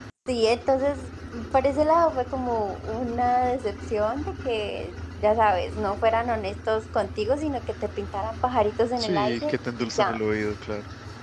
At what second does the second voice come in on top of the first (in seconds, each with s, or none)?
9.0 s